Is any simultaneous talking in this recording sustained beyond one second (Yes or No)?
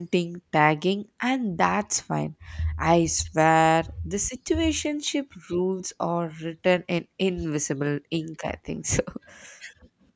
No